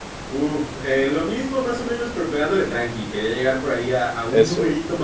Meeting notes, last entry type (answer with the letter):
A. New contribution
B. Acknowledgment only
B